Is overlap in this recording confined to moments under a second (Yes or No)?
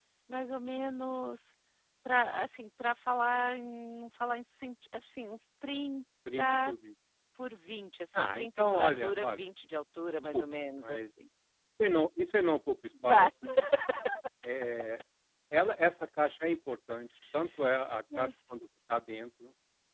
No